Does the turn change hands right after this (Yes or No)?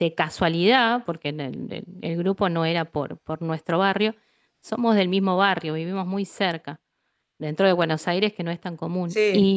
No